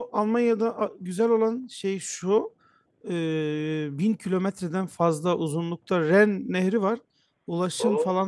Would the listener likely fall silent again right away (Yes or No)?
Yes